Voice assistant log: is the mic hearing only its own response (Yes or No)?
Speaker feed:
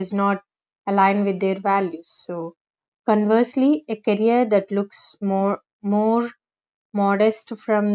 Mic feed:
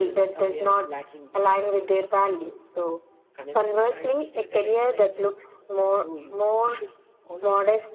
No